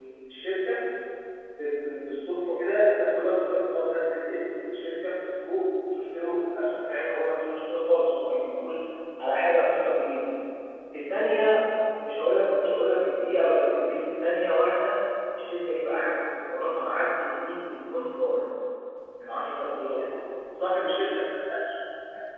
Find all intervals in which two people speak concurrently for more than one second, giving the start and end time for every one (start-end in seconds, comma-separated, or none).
none